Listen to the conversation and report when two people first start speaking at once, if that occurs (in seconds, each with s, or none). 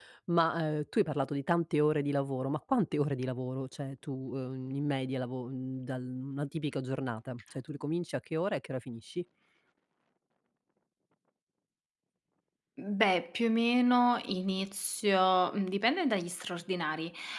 none